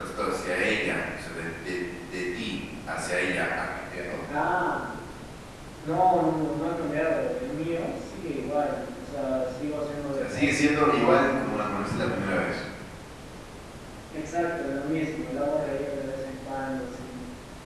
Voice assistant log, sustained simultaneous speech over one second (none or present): present